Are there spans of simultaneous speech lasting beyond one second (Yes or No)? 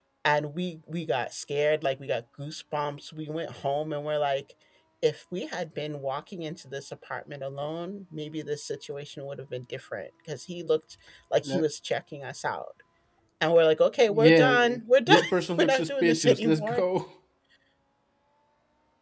Yes